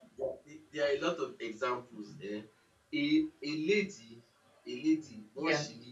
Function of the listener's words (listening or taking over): listening